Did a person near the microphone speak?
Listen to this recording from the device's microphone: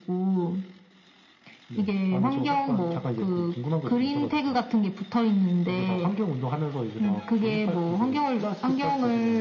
No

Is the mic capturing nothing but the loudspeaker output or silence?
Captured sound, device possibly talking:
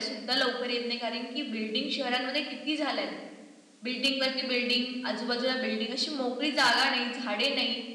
Yes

